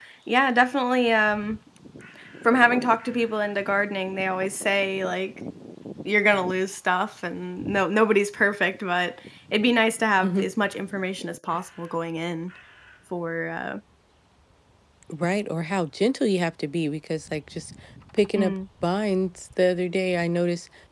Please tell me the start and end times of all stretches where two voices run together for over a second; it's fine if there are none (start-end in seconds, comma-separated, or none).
none